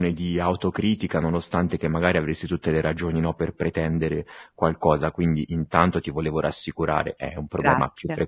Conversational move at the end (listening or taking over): listening